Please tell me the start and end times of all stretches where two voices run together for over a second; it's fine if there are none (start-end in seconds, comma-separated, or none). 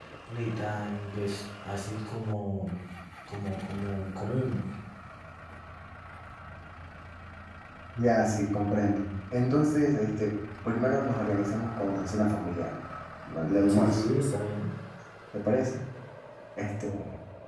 none